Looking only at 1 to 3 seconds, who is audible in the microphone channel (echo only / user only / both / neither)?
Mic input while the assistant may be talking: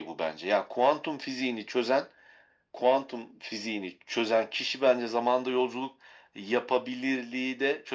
echo only